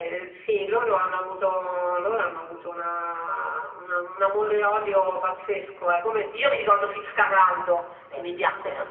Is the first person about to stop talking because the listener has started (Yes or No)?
No